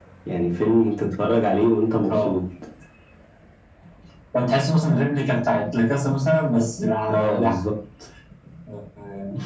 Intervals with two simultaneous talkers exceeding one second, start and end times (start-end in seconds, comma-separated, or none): none